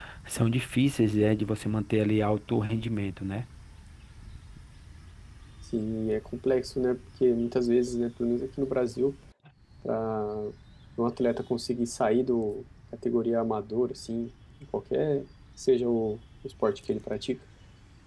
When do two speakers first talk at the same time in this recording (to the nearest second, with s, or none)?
none